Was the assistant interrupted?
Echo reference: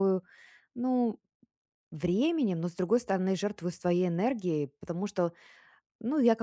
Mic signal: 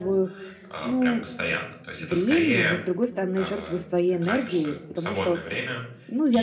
Yes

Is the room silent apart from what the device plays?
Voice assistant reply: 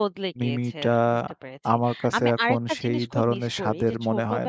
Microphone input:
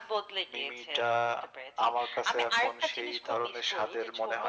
Yes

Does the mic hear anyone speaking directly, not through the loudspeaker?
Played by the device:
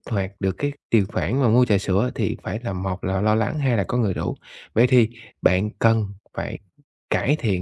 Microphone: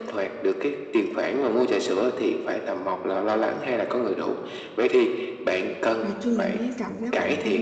Yes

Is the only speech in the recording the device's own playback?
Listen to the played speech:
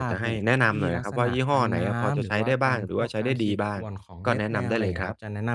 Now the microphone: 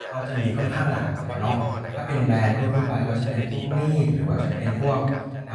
No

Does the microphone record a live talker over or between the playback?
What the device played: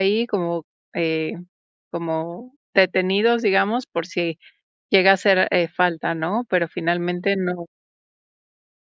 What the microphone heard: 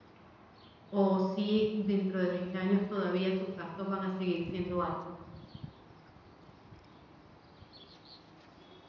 Yes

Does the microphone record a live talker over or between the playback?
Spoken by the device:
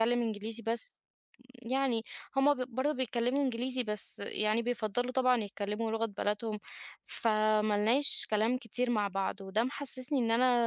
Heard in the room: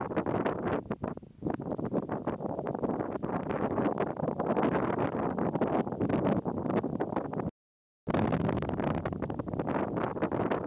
No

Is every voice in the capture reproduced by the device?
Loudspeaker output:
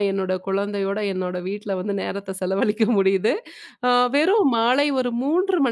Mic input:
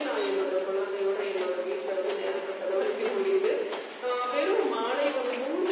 Yes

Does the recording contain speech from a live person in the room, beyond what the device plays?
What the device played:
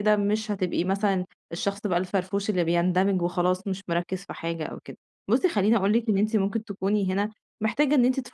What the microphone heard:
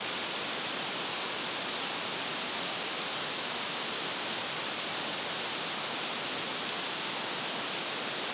No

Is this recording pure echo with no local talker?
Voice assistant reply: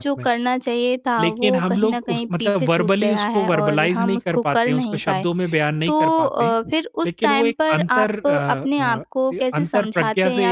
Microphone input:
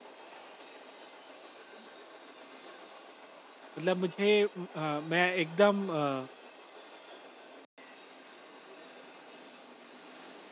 No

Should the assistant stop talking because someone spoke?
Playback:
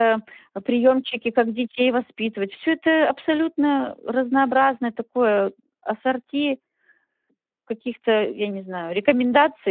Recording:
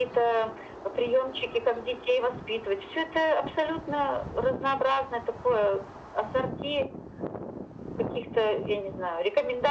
No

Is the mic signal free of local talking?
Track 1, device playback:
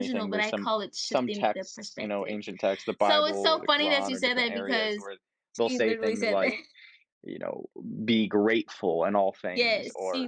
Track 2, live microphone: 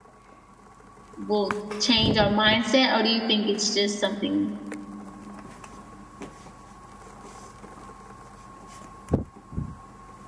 No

